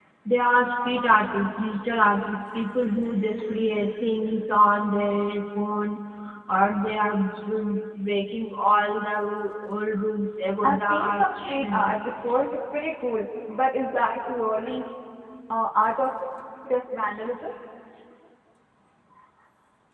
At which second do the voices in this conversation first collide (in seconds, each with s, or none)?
10.6 s